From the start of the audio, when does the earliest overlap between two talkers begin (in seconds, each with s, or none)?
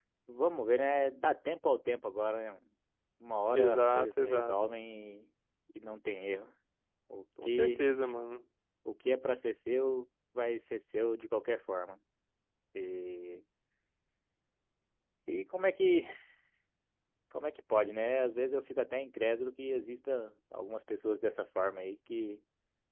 3.5 s